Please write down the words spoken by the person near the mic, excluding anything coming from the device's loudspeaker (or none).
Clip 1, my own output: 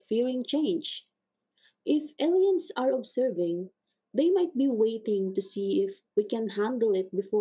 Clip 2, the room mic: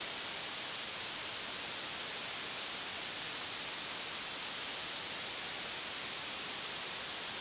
none